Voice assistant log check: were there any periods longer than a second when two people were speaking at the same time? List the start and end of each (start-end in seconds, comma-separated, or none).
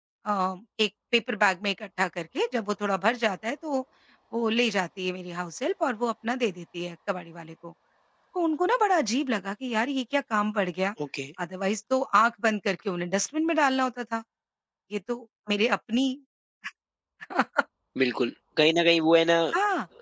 none